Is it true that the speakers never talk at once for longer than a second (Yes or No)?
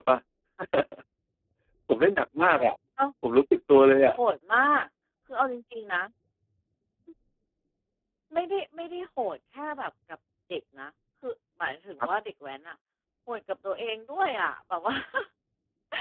Yes